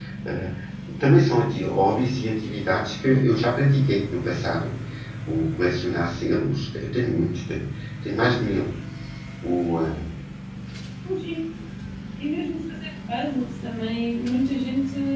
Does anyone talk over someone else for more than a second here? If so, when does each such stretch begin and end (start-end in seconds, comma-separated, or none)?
none